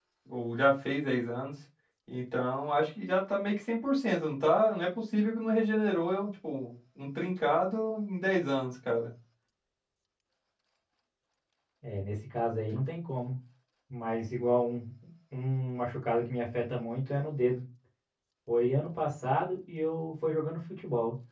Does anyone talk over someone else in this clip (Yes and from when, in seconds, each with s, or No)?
No